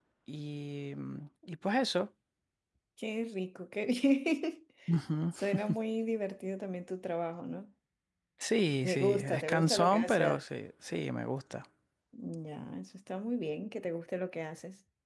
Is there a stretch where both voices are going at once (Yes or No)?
Yes